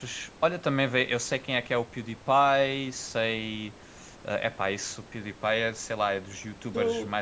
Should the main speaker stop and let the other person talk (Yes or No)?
No